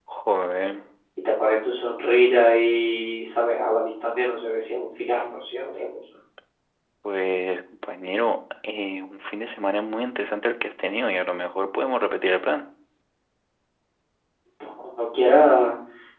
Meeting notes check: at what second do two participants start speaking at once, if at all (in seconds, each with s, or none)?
none